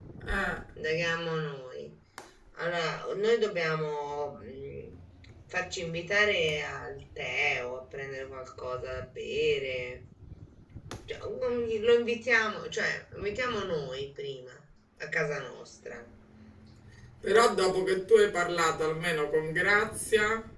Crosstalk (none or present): none